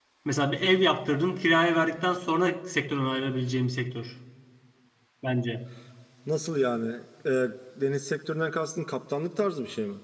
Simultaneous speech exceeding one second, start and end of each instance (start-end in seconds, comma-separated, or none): none